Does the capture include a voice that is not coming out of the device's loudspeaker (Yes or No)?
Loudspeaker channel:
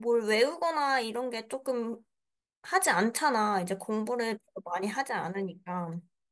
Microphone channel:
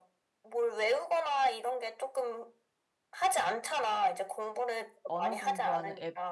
Yes